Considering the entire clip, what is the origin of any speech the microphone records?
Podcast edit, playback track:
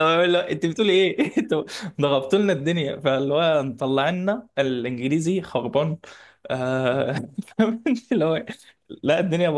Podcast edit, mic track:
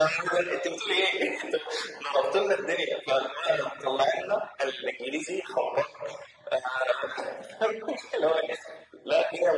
echo only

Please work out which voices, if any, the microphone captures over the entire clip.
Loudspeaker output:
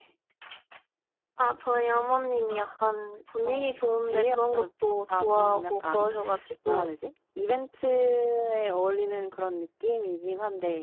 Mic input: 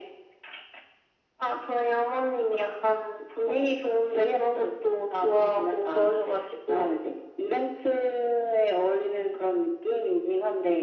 echo only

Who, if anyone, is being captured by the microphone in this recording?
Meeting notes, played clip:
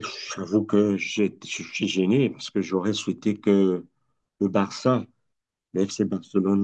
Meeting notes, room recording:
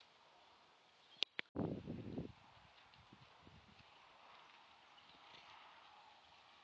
neither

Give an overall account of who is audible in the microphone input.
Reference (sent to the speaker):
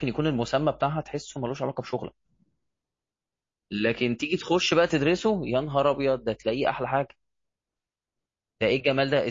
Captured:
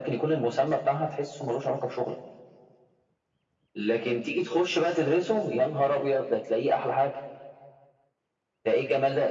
echo only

